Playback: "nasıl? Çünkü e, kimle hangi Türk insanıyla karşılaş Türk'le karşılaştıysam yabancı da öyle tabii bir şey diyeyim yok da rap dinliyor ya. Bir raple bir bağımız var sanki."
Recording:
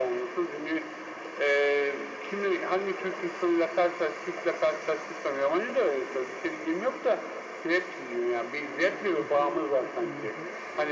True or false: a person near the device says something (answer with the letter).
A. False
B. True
B